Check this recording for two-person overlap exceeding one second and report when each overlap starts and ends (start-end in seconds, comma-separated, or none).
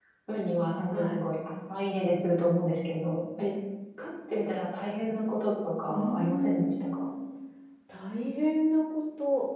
5.9-7.1